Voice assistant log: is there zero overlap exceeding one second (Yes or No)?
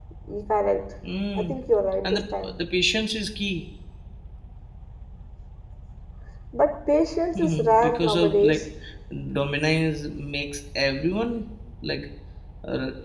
No